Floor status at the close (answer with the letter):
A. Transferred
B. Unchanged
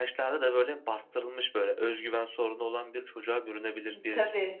B